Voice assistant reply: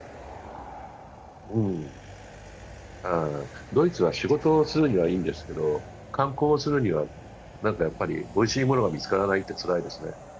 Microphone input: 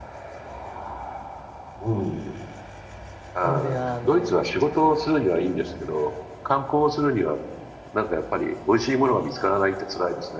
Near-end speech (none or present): present